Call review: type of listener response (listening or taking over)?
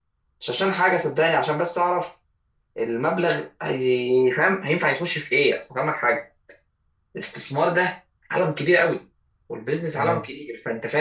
listening